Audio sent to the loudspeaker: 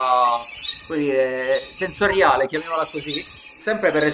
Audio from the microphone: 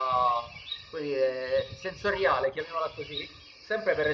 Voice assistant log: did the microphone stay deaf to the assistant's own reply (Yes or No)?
No